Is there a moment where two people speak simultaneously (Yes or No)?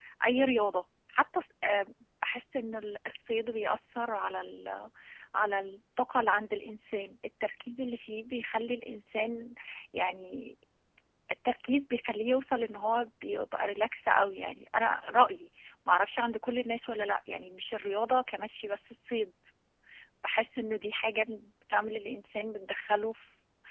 No